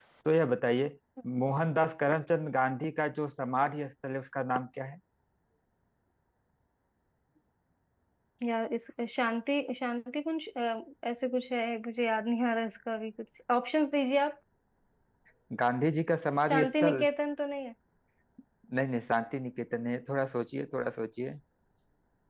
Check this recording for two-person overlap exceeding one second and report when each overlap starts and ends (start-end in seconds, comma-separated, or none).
none